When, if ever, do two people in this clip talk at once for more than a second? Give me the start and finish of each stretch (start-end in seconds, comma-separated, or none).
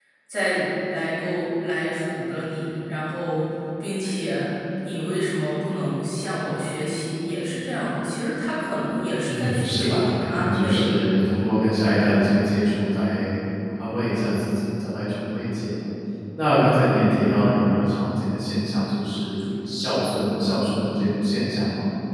9.3-11.0